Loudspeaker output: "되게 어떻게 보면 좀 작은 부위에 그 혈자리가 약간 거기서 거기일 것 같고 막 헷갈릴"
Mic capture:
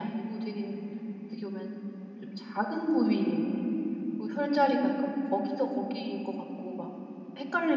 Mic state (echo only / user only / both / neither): echo only